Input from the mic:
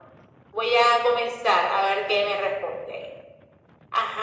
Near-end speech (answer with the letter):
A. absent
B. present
A